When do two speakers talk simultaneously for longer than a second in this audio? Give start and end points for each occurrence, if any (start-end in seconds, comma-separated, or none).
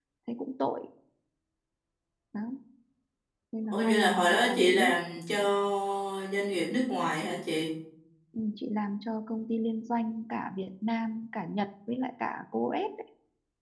3.7-4.9